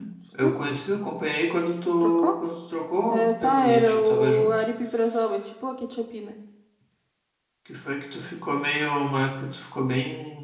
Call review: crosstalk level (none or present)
present